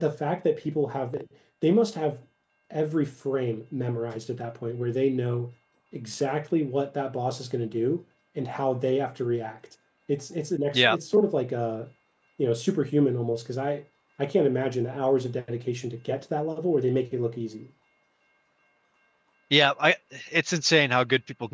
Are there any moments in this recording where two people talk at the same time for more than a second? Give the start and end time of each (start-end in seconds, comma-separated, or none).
none